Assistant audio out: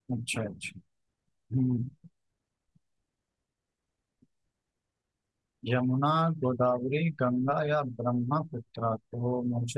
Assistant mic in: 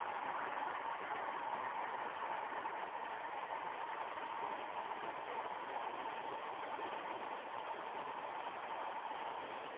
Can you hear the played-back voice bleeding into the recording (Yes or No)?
No